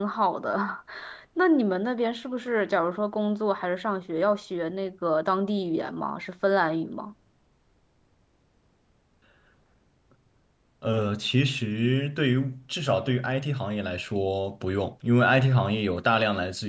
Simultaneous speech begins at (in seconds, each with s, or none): none